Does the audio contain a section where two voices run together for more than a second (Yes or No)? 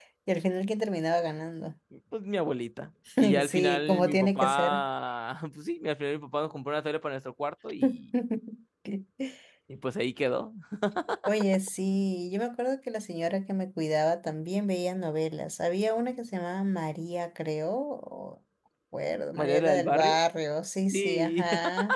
Yes